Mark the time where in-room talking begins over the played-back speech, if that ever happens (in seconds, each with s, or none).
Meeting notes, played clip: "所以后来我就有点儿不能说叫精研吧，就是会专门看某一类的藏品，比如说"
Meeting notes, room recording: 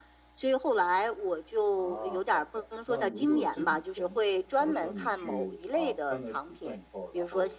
1.6 s